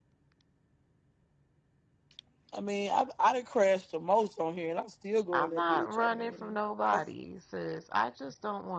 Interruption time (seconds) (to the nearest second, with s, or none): 5 s